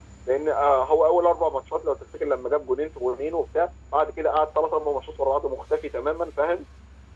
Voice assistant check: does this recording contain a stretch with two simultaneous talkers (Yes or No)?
No